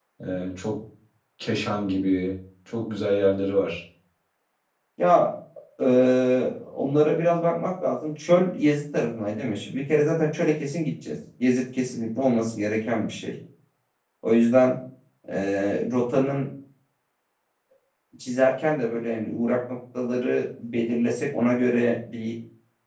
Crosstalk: none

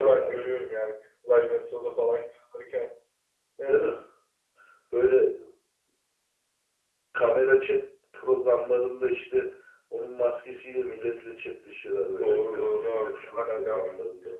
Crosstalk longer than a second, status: present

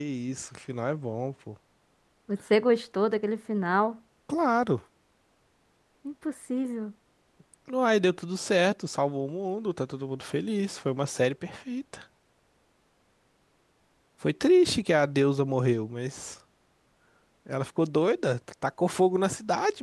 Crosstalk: none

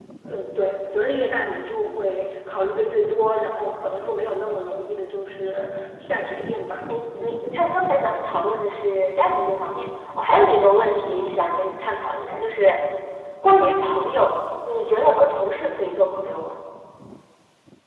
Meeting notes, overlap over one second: none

